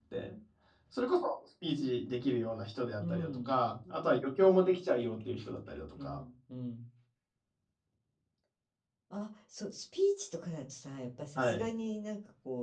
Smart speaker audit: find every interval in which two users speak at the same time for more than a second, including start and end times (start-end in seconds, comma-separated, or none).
none